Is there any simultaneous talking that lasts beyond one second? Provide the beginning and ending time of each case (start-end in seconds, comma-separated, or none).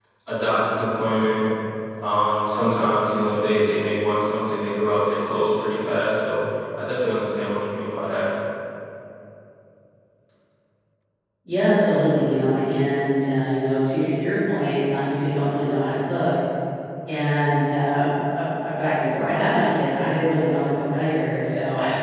none